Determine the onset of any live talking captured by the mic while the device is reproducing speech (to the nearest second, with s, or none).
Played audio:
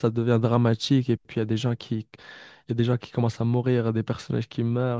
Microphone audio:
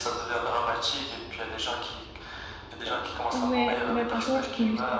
3 s